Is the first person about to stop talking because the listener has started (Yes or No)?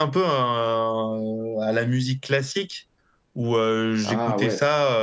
No